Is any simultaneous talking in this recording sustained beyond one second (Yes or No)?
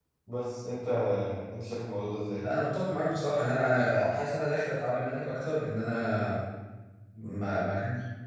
No